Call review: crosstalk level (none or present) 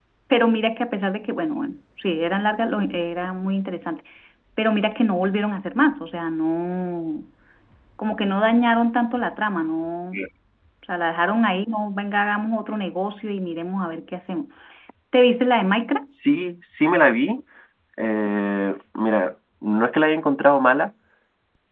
none